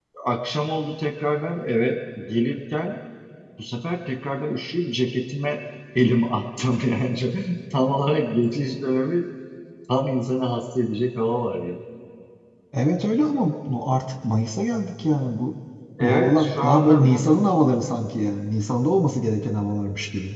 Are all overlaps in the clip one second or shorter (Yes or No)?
No